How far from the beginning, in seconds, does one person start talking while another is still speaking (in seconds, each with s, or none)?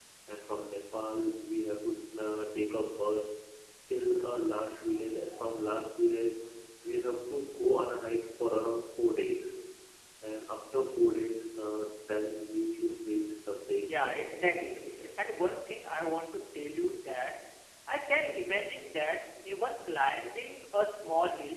13.9 s